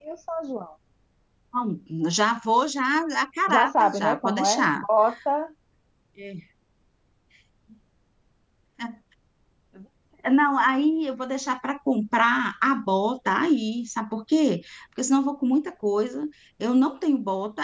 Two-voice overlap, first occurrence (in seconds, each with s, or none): 3.5 s